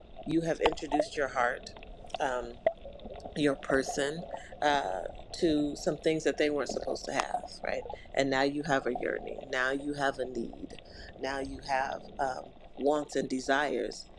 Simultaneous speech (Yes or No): No